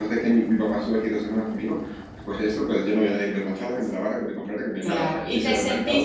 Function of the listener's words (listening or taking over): taking over